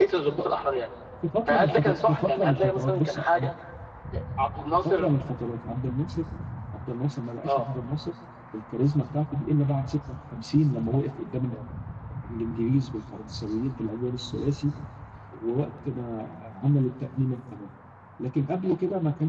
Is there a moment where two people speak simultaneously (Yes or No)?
Yes